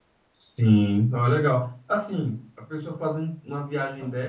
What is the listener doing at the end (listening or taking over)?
listening